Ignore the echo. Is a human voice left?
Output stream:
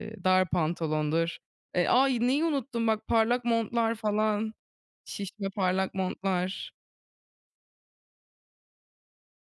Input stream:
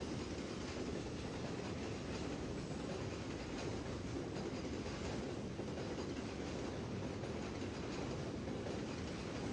No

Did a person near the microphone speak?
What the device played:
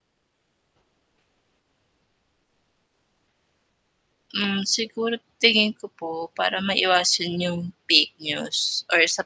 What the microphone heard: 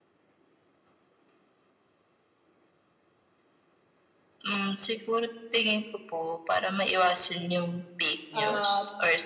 Yes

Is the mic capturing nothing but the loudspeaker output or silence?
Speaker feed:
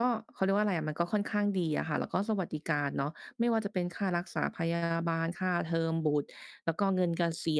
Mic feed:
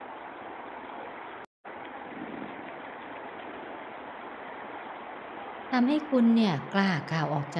No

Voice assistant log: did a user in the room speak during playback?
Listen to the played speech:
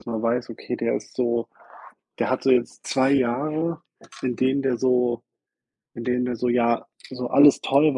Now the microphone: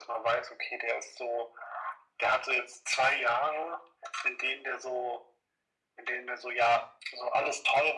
No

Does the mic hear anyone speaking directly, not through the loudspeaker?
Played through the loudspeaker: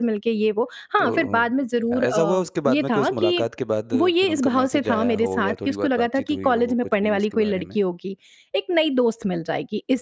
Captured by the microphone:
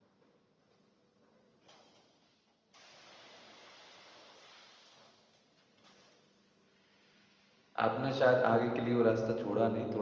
Yes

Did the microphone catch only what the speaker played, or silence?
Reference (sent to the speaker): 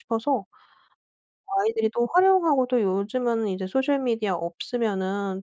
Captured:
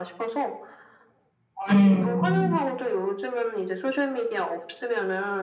No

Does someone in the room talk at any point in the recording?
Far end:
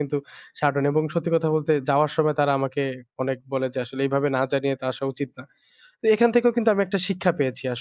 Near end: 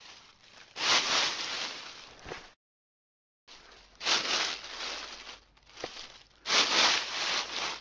No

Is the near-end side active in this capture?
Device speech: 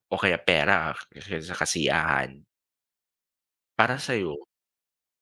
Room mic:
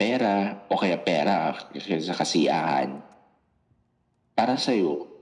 No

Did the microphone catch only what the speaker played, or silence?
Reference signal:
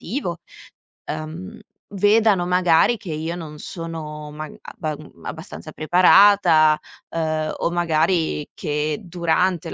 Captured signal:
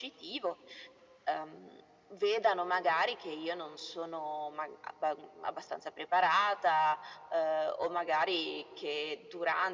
Yes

